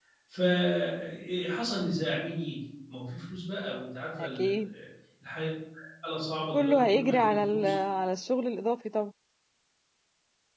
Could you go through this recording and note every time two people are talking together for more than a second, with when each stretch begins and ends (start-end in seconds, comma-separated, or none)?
6.5-7.7